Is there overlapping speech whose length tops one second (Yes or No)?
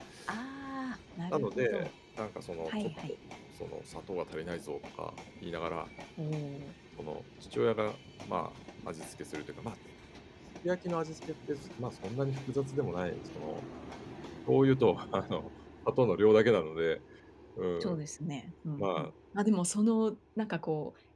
No